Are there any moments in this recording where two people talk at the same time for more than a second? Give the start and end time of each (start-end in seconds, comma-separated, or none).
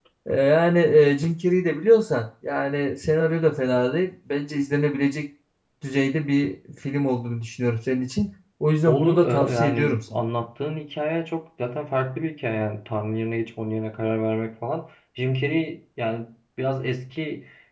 8.9-10.2